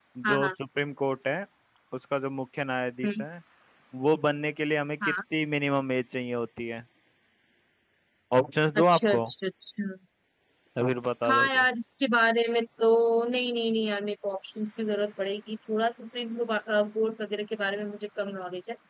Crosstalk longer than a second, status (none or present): none